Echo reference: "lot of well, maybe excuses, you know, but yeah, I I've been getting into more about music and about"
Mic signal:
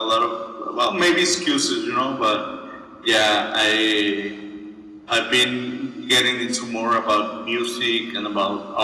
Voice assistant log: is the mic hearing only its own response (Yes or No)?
Yes